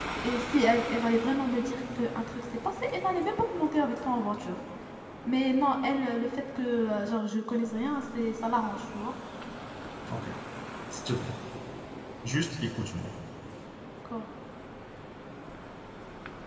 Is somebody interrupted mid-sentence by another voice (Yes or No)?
No